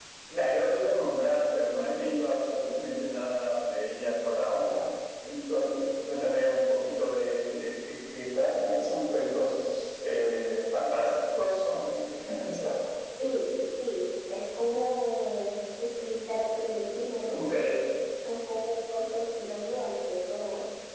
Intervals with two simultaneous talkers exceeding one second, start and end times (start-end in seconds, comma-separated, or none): none